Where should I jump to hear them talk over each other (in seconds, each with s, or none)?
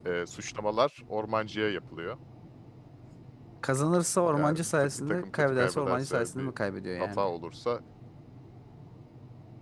4.3 s